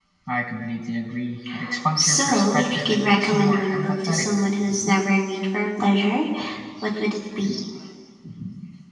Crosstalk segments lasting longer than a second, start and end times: 1.9-4.3

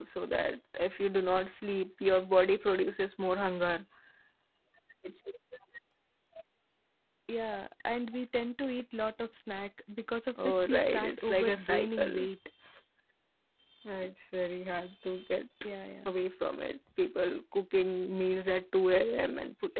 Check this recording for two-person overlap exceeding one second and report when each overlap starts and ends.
10.4-12.3

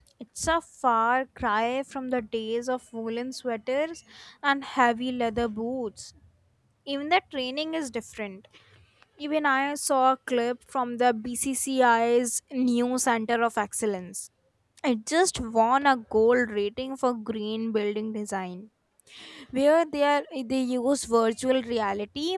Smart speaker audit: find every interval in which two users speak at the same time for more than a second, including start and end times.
none

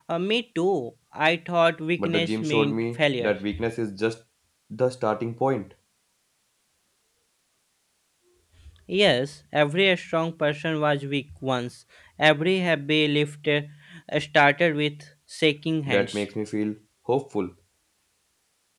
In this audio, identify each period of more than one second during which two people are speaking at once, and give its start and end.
2.0-3.3

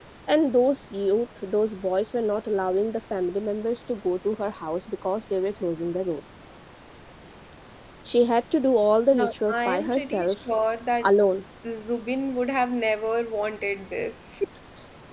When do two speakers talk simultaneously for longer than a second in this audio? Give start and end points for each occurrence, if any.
9.1-10.3

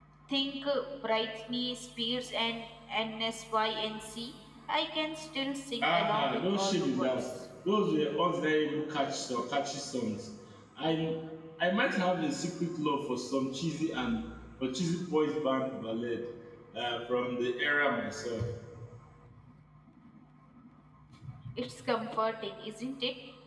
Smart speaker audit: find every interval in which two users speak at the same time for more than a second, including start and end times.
5.8-7.1

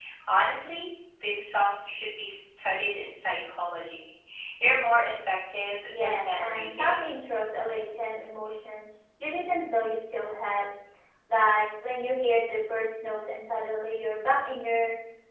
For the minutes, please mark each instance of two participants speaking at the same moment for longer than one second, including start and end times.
5.9-7.3

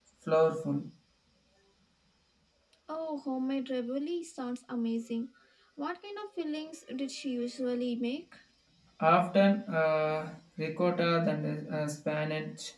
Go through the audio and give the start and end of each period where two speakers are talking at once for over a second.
none

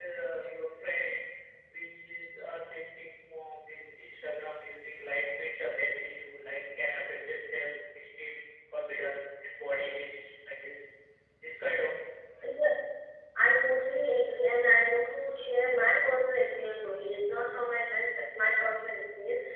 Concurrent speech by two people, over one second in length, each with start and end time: none

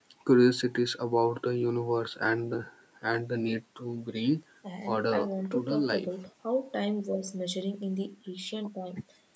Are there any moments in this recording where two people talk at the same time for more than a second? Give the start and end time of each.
4.9-6.1

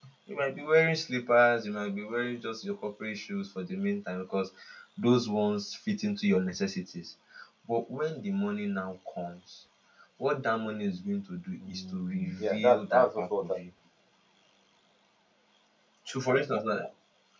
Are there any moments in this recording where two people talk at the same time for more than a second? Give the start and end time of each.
11.6-13.5

